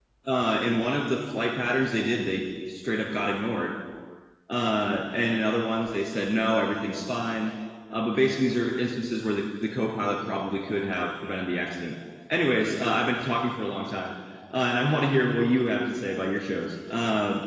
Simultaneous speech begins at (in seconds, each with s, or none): none